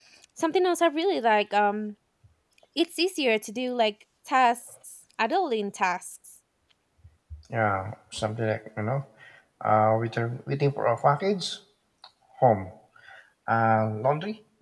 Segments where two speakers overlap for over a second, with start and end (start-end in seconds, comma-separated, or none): none